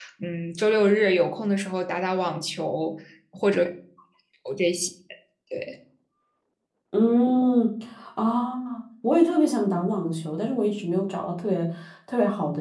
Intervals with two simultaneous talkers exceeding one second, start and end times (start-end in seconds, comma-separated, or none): none